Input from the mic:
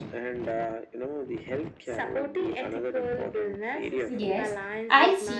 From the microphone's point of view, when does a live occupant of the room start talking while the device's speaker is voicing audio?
4.2 s

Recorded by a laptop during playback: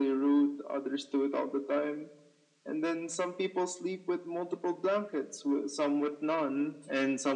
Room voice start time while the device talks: none

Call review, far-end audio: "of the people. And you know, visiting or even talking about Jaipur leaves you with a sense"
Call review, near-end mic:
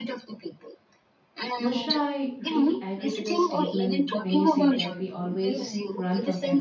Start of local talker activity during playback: 1.6 s

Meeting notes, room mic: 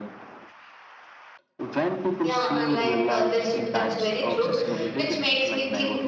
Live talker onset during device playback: 2.2 s

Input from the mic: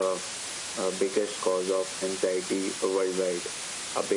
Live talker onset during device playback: none

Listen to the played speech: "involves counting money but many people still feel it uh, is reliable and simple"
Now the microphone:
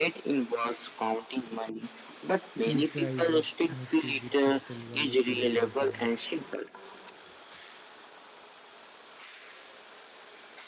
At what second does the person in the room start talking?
2.6 s

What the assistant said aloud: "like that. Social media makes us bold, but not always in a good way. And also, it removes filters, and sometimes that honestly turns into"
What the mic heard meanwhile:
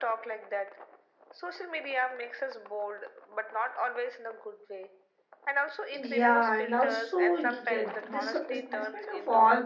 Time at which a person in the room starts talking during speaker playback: 5.9 s

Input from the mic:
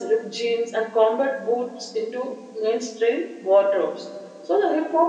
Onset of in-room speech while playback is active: none

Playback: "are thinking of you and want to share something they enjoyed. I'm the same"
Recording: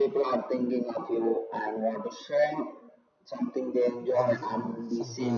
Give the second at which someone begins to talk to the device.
4.1 s

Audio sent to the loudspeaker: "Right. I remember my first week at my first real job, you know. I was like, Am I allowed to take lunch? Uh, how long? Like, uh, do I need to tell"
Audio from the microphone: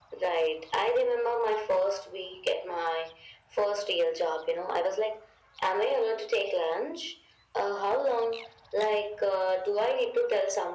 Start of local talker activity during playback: none

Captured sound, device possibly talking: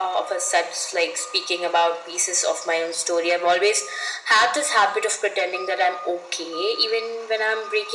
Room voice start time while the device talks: none

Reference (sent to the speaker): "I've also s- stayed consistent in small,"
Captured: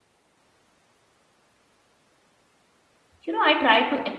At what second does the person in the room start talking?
3.2 s

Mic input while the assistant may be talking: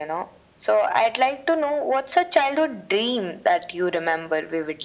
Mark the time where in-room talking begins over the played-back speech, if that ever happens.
none

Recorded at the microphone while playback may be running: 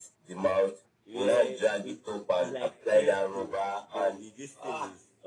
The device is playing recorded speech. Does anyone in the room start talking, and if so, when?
1.0 s

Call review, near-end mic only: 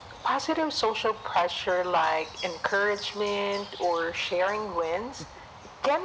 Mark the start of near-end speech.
none

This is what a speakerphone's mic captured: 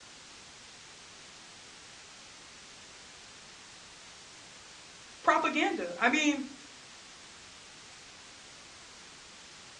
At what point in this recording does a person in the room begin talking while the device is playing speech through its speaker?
5.2 s

